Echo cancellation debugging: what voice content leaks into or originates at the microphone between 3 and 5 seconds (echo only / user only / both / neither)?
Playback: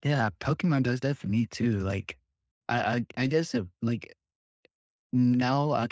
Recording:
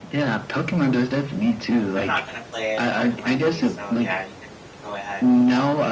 both